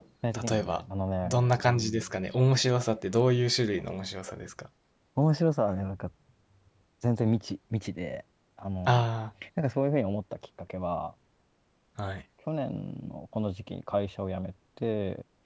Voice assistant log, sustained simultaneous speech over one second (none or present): none